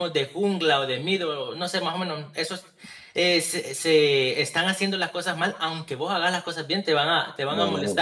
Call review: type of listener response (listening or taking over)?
taking over